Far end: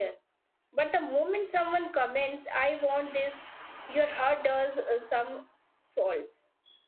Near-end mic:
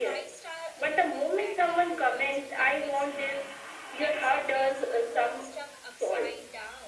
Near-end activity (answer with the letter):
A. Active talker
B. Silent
A